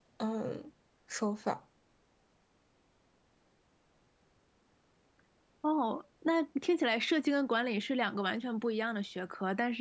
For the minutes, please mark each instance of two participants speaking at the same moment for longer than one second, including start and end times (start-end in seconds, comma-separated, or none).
none